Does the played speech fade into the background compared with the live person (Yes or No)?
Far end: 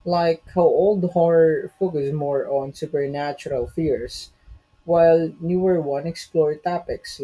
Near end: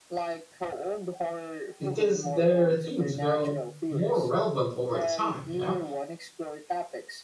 Yes